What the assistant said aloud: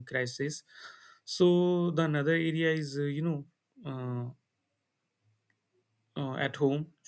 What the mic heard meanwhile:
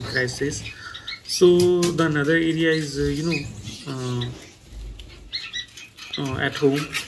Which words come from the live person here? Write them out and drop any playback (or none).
none